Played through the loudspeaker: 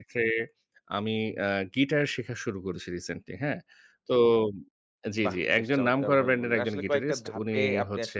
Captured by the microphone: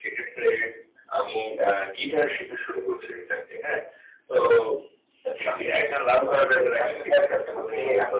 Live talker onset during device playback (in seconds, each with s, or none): none